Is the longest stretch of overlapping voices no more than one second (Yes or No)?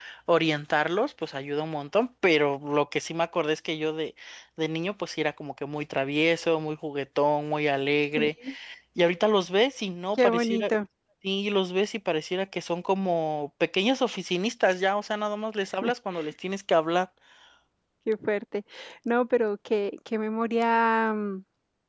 Yes